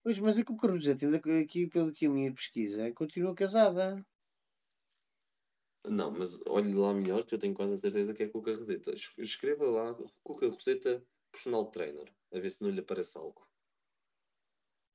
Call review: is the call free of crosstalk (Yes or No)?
Yes